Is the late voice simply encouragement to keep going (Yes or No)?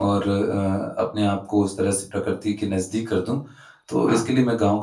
Yes